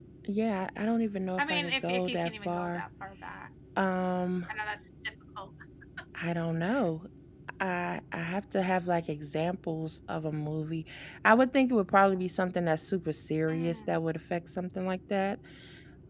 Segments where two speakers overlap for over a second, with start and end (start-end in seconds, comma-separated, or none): 1.4-2.8